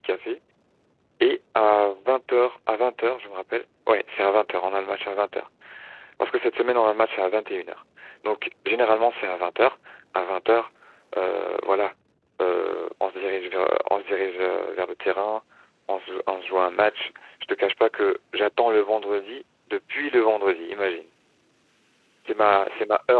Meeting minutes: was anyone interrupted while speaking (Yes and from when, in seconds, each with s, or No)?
No